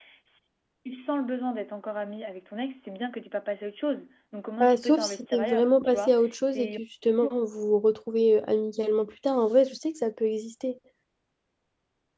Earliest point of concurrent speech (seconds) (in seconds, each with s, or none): 4.6 s